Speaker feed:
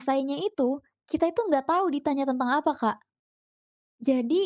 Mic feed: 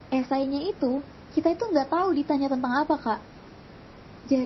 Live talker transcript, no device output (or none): none